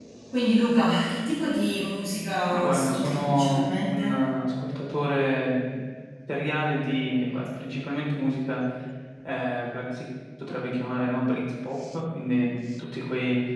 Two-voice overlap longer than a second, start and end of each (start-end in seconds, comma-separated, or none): 2.5-4.2